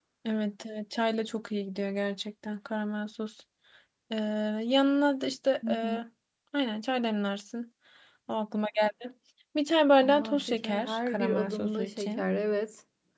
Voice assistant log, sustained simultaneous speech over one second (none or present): present